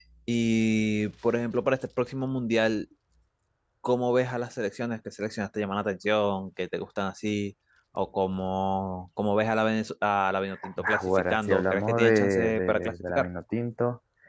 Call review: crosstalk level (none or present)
present